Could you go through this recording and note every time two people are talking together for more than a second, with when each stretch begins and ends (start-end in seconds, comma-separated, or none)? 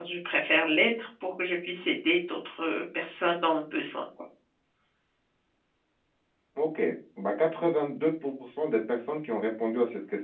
none